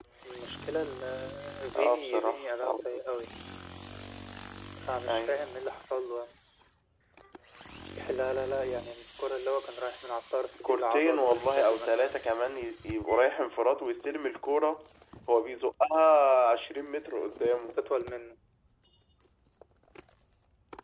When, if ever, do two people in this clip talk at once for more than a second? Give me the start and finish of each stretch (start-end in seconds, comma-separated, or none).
1.8-3.0, 10.6-12.2